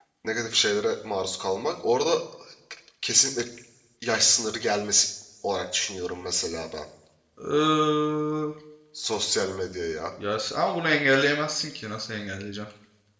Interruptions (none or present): none